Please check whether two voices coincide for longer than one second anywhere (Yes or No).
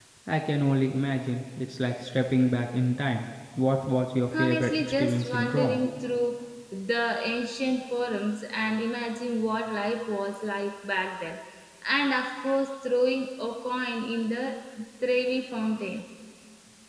Yes